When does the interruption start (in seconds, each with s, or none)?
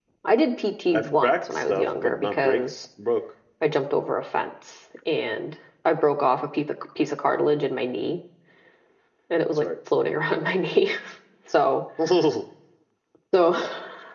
0.9 s